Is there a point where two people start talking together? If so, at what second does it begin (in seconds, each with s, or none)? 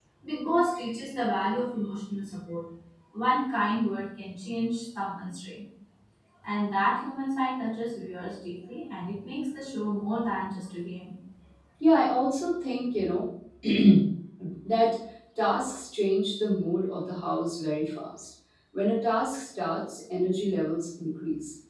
none